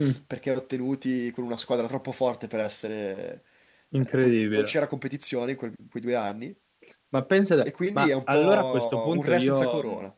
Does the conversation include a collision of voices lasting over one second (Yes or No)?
Yes